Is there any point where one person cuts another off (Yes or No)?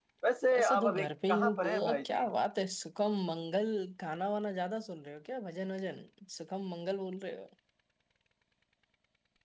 Yes